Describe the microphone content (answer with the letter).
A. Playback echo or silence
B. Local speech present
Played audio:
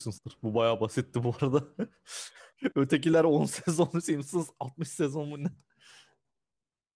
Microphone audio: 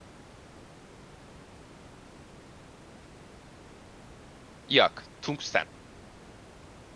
B